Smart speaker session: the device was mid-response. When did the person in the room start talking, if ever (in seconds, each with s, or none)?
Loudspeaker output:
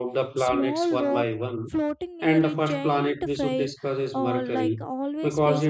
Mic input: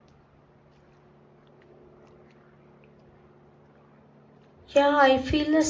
4.7 s